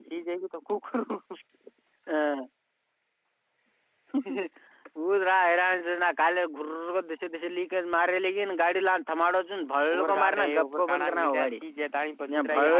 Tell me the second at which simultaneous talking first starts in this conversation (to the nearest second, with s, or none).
10 s